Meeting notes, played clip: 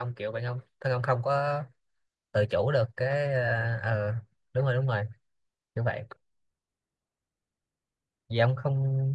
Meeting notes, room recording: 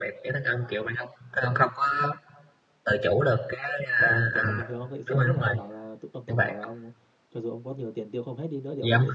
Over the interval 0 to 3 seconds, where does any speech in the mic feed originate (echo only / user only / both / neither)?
echo only